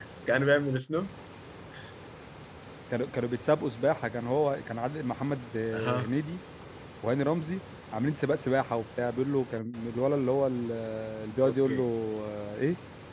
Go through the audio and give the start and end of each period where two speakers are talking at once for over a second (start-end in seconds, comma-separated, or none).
none